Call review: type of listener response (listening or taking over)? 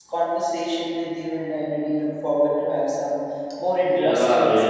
taking over